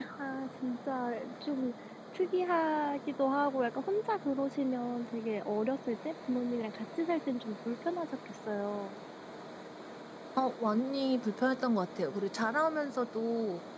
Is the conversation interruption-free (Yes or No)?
Yes